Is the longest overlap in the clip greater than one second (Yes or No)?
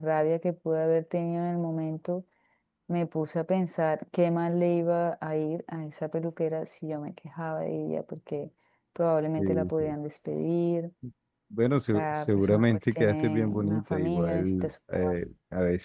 Yes